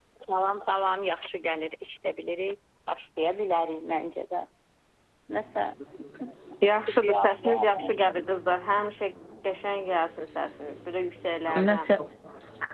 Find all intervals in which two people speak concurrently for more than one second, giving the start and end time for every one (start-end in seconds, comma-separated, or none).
6.9-8.1